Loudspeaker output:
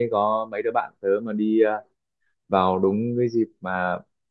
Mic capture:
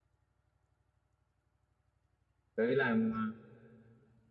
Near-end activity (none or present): present